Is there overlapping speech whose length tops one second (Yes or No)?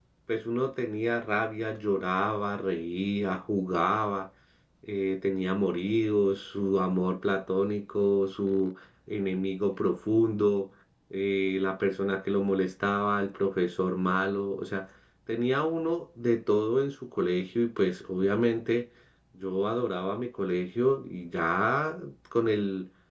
No